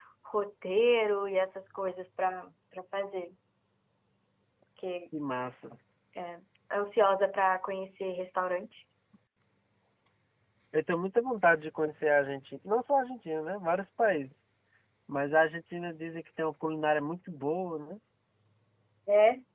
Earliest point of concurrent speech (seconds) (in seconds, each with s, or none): none